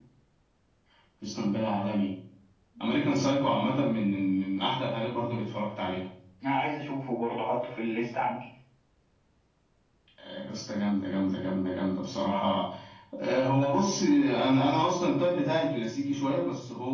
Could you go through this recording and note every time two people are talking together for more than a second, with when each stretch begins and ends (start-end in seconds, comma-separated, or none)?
none